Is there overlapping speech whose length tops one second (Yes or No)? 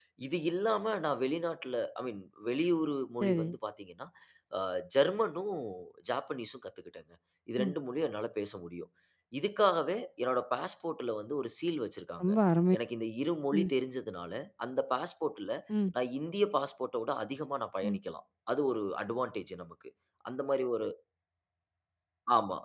No